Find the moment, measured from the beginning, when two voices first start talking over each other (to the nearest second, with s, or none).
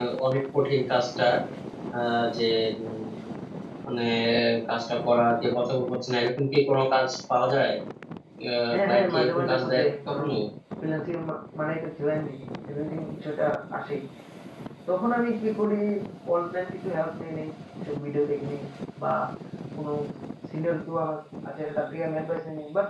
9 s